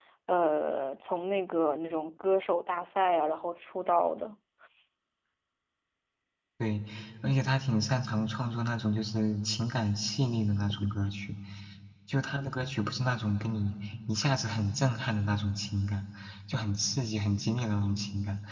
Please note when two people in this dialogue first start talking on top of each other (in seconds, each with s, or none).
none